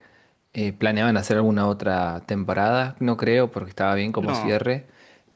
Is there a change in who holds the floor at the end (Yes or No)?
No